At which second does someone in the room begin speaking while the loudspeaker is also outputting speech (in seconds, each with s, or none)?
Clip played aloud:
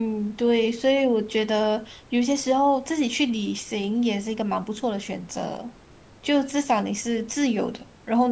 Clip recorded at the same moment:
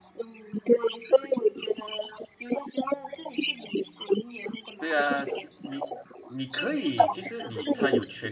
4.8 s